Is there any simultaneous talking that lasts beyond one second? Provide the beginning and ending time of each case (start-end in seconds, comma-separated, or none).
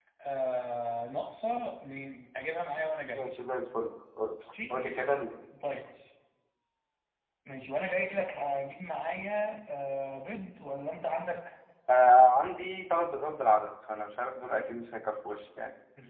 none